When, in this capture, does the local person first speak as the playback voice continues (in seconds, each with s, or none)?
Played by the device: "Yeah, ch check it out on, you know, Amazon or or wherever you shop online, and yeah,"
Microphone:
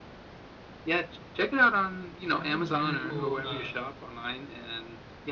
2.2 s